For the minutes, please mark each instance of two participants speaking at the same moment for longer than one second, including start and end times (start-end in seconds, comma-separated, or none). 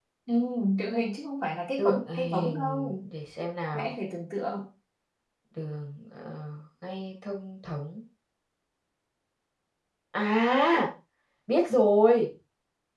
1.8-3.0